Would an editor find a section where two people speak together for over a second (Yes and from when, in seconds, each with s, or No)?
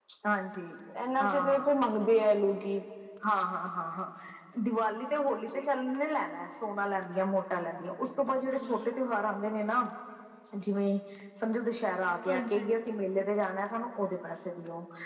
No